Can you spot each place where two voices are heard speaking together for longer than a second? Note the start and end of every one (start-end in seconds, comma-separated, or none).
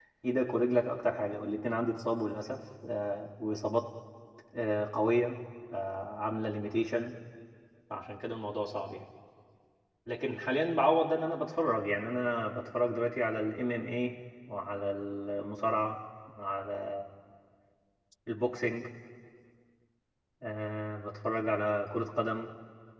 none